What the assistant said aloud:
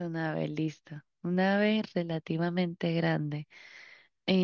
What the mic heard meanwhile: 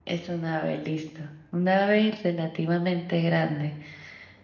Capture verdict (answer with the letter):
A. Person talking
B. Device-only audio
B